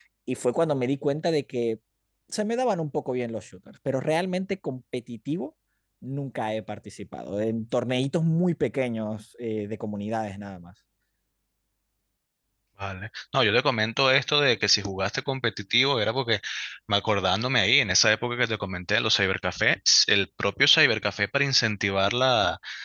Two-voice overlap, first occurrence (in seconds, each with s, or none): none